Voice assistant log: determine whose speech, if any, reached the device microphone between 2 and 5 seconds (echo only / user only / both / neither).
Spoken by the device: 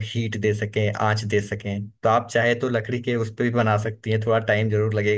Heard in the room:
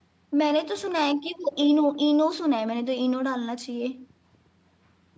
user only